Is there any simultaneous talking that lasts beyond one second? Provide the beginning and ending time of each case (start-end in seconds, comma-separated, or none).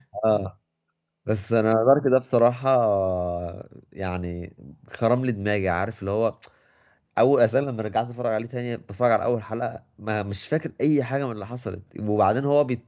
none